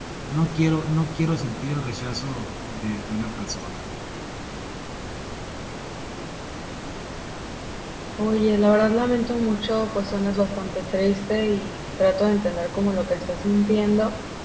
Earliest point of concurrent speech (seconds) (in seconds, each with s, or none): none